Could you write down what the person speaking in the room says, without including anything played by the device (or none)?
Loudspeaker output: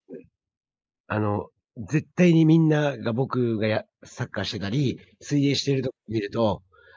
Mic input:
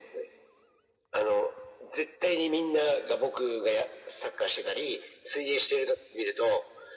none